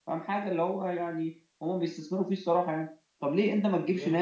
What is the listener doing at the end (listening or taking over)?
listening